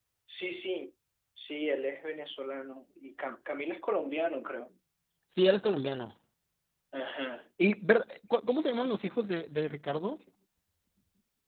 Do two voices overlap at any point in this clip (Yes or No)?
No